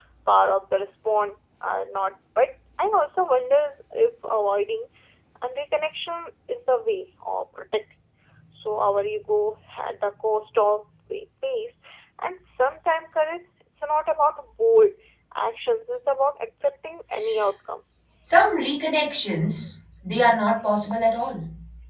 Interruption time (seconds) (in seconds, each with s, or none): none